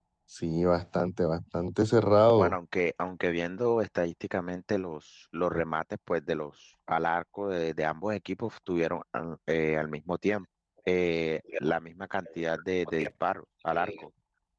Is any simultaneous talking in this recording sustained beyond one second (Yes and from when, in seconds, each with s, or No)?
No